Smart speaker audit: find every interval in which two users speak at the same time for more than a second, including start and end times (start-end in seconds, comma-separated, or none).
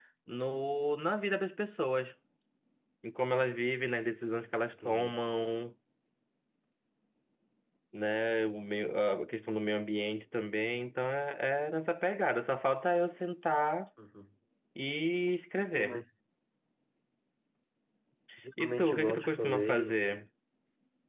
18.6-19.9